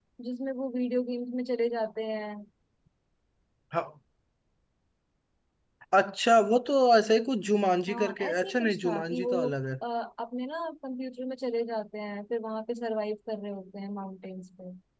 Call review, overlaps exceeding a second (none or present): present